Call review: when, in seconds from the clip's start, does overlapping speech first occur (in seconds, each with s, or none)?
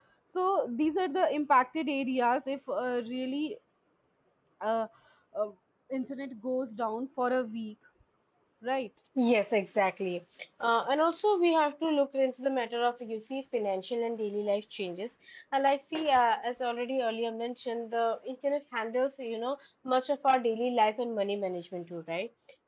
none